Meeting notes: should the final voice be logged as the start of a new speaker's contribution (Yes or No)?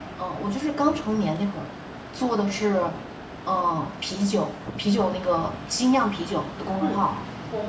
Yes